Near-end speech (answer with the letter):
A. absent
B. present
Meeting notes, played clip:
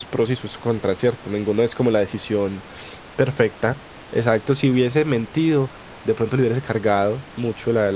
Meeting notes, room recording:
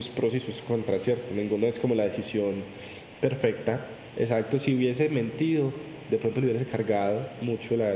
A